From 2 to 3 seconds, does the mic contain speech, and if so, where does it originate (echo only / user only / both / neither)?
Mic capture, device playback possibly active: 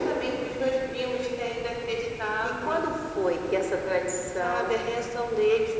echo only